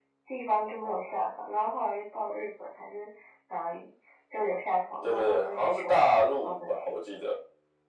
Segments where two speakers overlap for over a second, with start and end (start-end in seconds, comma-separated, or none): 5.0-6.9